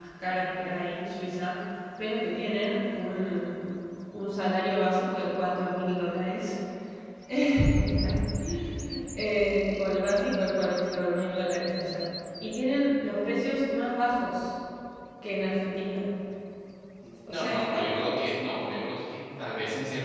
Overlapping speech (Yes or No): Yes